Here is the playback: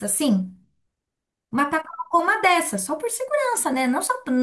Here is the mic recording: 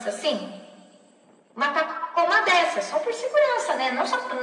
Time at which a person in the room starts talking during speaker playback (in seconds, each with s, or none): none